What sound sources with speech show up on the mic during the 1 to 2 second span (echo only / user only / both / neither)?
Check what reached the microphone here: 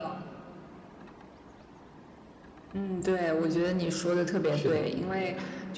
neither